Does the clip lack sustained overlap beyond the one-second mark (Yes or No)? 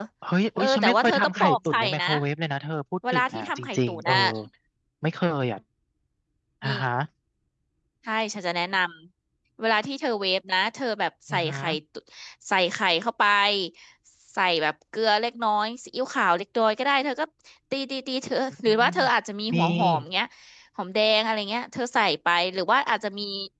No